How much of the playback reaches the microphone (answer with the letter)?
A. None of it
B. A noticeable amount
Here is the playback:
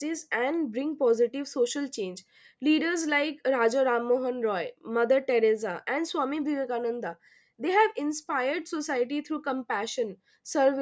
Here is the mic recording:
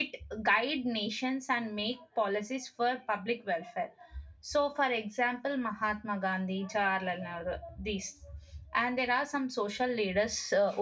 A